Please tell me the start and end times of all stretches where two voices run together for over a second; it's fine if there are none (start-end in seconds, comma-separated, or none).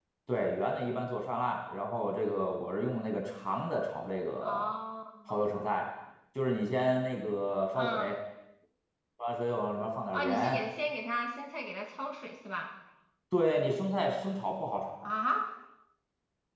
none